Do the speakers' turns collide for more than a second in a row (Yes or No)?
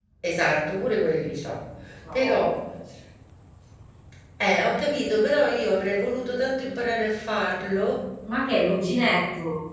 No